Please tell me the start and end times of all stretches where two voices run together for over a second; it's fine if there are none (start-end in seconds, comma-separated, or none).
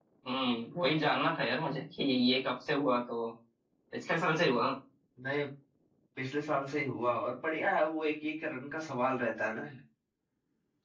none